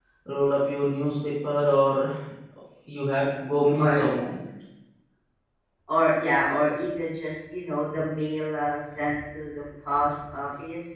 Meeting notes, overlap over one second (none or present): none